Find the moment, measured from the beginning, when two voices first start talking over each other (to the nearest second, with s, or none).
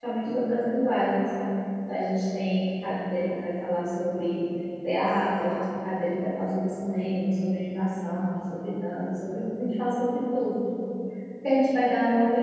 none